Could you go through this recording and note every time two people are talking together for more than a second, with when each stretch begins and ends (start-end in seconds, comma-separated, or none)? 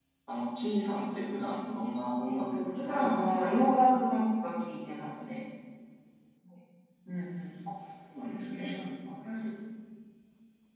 2.3-3.6